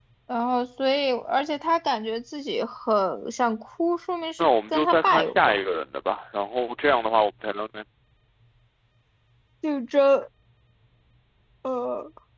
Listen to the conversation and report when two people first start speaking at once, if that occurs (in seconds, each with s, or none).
4.4 s